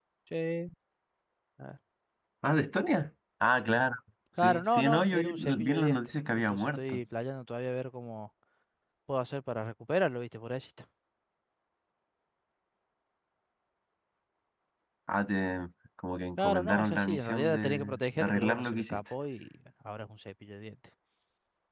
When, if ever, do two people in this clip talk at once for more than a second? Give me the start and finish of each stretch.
4.4-7.0, 16.4-19.0

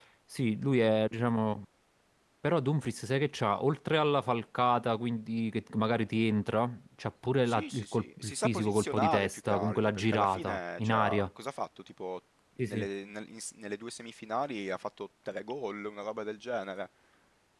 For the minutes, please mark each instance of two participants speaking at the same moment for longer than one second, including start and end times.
7.5-11.3

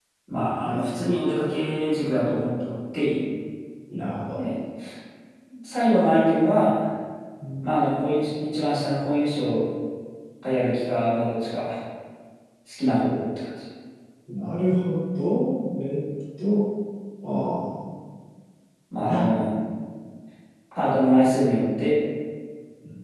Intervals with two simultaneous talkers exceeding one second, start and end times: none

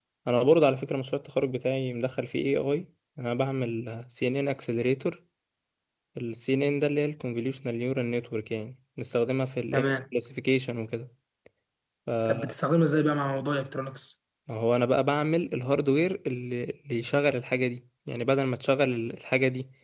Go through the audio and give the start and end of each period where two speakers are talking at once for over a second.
none

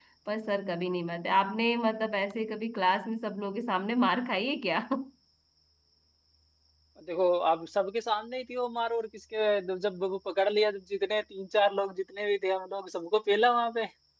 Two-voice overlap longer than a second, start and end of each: none

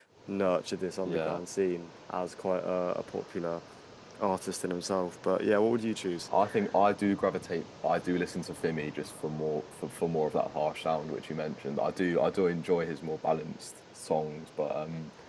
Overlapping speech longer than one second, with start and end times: none

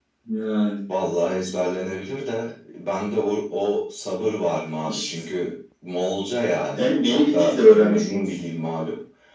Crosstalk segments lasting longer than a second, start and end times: 6.8-8.3

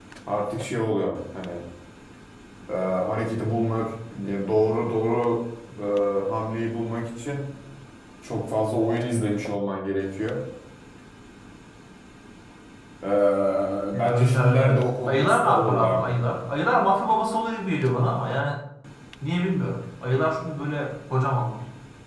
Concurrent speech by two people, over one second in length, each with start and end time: 14.0-16.2

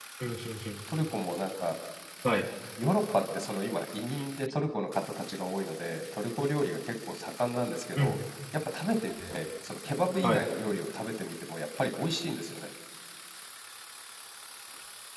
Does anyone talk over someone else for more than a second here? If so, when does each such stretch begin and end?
none

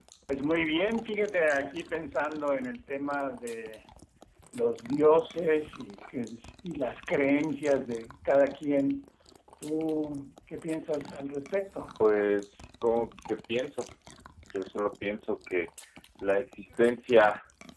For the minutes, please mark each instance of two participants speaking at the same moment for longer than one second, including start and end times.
none

